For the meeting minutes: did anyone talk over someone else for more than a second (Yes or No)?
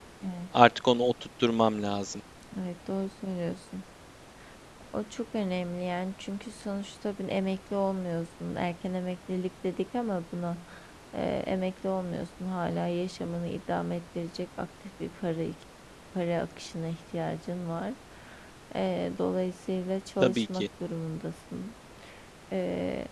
No